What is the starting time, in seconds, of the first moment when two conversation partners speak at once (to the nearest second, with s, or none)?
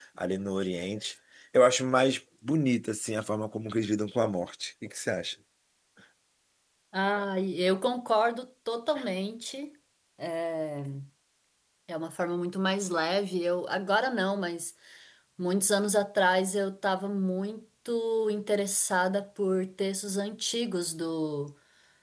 none